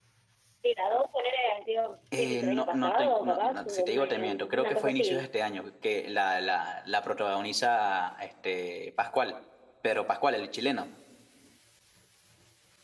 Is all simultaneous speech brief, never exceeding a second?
No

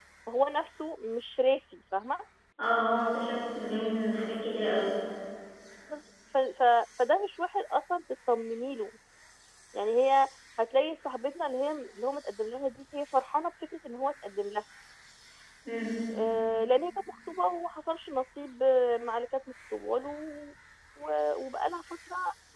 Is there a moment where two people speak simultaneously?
No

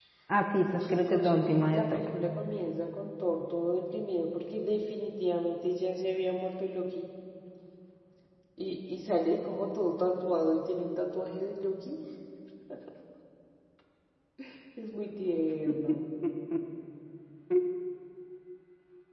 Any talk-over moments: Yes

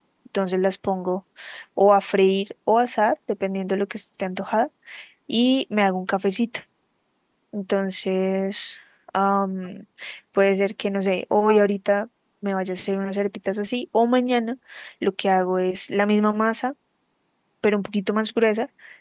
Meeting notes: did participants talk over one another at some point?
No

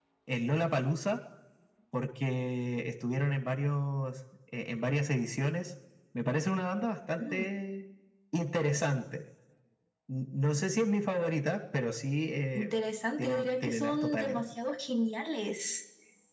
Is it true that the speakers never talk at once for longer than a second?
No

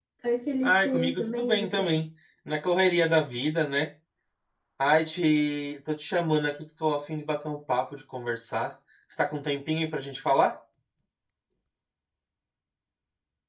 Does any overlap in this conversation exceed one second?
Yes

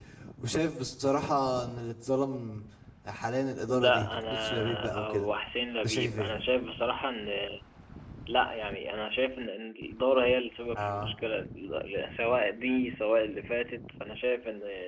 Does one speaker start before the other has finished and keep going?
Yes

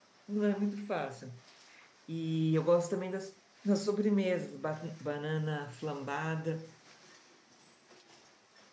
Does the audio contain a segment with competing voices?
No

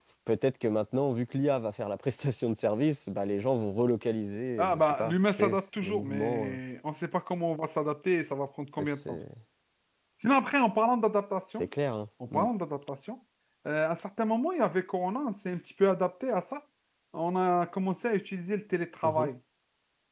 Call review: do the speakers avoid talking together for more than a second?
No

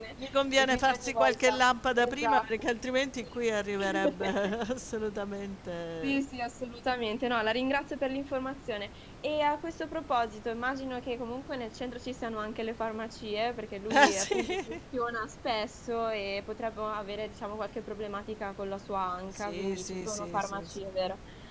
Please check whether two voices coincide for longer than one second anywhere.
Yes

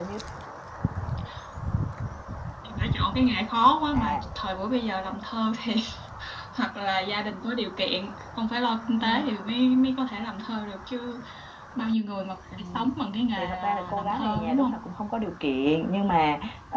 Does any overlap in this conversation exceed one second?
Yes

